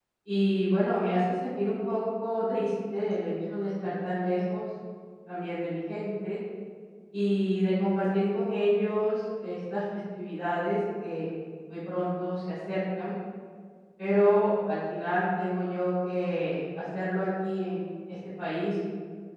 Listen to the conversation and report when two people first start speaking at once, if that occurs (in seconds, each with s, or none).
none